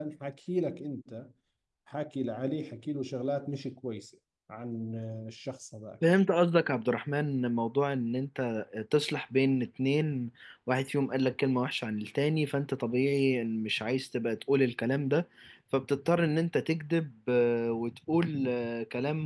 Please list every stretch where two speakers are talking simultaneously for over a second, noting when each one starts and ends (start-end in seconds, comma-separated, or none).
none